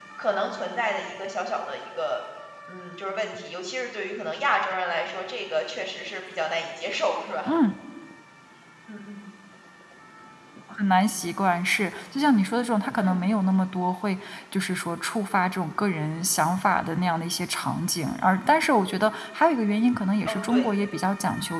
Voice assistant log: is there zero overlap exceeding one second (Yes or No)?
Yes